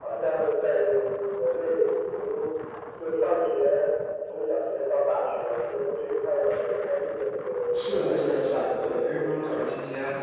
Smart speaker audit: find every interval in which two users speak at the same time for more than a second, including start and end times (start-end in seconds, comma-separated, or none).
7.7-9.7